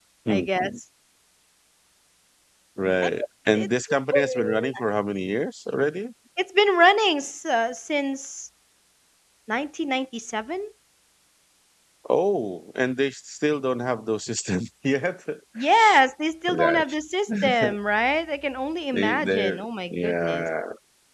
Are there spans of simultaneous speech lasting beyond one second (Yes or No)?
Yes